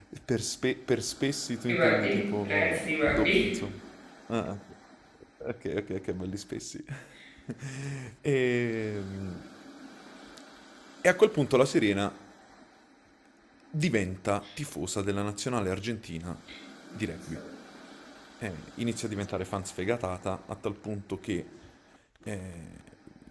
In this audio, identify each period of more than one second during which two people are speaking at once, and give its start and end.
1.7-3.5

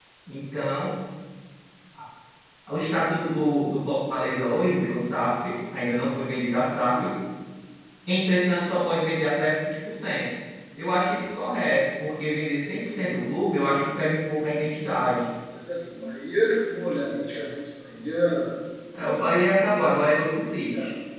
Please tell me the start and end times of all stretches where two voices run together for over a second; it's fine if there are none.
none

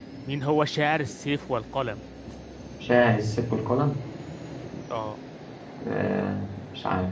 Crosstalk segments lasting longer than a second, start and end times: none

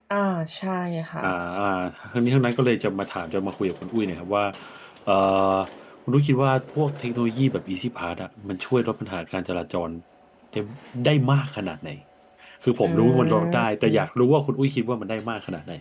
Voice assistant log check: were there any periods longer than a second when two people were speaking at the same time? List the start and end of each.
12.7-14.1

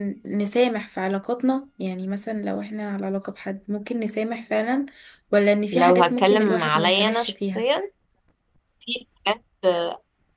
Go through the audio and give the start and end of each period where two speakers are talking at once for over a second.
5.7-7.6

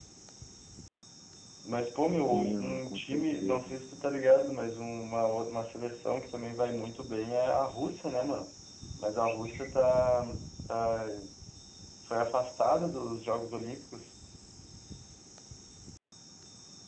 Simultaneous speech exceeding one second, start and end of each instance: 2.3-3.9

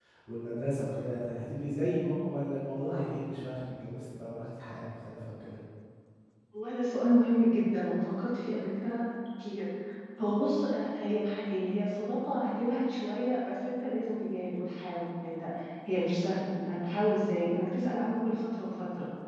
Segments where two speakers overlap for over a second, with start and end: none

